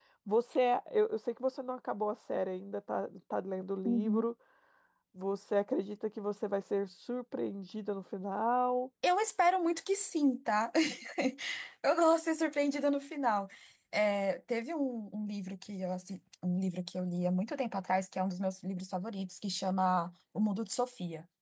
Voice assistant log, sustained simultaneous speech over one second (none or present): none